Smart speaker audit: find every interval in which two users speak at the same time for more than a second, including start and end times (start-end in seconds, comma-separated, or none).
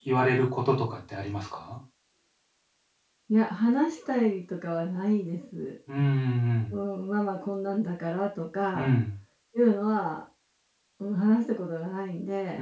none